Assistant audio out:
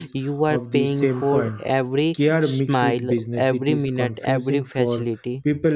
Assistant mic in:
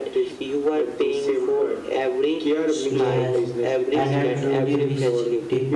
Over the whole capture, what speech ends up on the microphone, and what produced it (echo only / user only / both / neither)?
both